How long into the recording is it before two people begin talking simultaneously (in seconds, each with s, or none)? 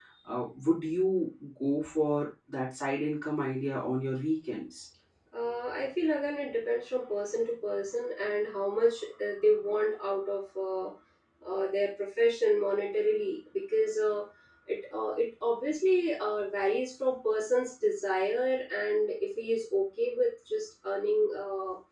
none